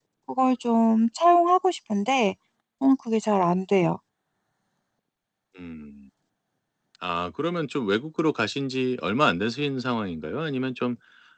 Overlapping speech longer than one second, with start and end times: none

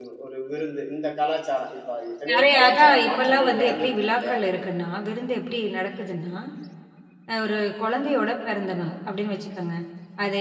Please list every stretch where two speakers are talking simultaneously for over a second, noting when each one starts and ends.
2.3-4.4

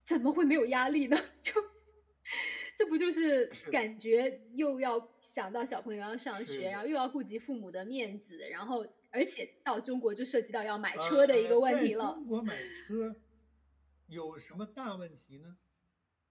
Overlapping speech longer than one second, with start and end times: 10.9-12.2

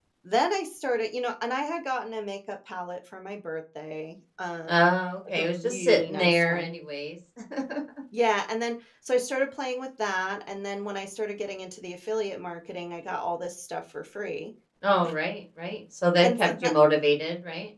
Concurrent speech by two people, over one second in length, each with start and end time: 5.3-6.7

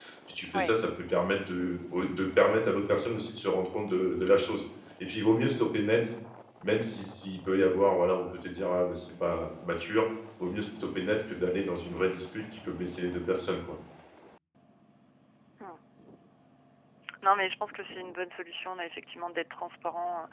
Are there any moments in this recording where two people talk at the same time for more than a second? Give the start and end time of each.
none

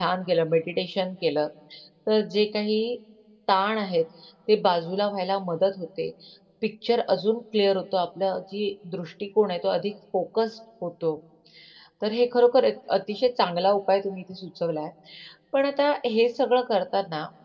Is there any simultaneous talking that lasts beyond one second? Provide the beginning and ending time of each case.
none

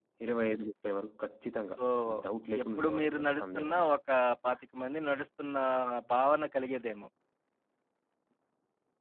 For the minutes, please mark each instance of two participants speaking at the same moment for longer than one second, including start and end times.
2.6-3.9

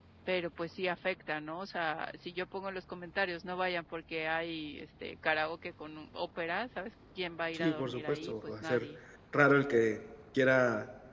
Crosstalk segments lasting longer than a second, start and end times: 7.5-8.9

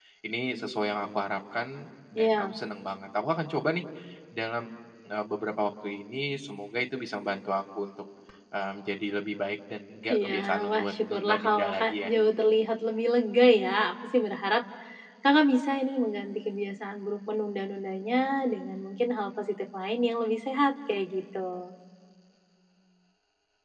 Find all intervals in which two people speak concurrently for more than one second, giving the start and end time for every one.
10.1-12.1

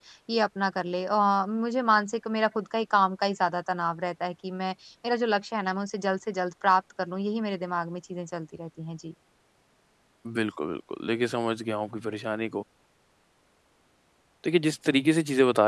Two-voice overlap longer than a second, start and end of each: none

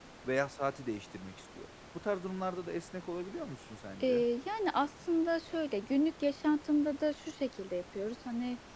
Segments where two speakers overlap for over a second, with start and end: none

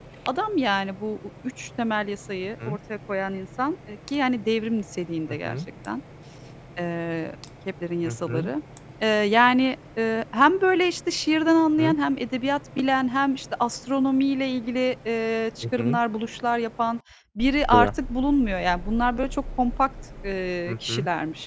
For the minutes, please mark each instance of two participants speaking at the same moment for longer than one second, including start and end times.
none

